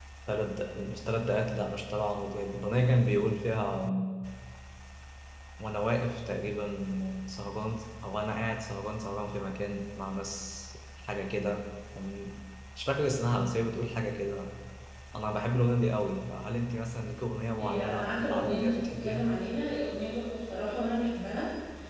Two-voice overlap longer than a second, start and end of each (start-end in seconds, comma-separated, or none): 17.6-19.2